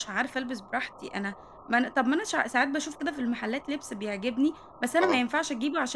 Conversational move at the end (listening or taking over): listening